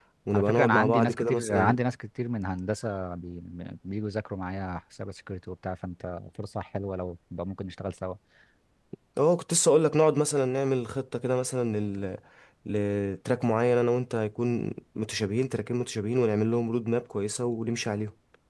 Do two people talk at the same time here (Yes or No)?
Yes